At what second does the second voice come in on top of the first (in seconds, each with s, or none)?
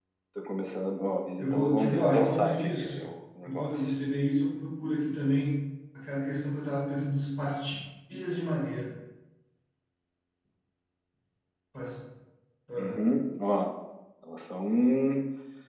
1.4 s